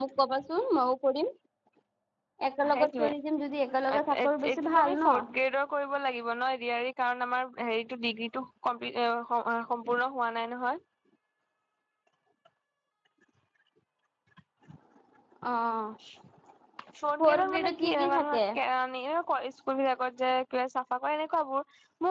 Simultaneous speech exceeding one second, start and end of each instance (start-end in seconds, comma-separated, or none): 4.0-5.2, 17.2-18.4